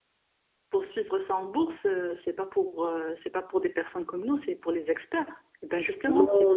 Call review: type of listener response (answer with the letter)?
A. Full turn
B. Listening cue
A